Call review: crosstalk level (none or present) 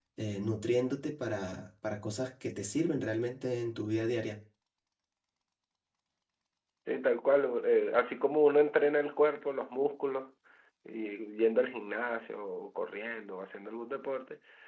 none